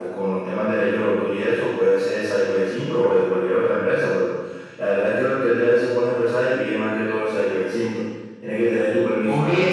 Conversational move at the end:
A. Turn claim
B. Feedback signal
A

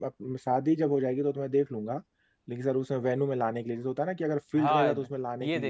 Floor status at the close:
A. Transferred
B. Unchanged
A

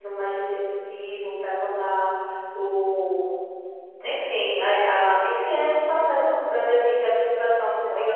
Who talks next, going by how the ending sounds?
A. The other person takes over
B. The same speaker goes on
B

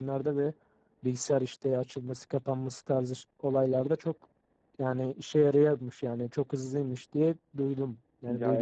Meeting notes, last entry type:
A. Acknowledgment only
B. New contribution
B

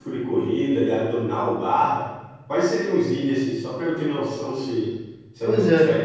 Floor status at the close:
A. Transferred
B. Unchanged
A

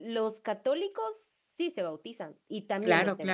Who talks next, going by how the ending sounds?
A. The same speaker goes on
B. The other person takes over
B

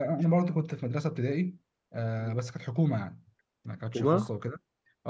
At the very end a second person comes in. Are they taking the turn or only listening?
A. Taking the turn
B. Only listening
B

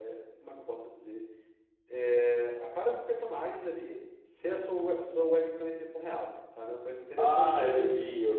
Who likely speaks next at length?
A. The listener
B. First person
A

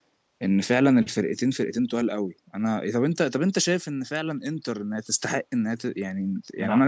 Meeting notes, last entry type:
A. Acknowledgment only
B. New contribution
A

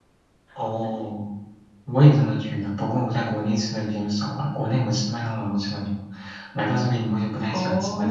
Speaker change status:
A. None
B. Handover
B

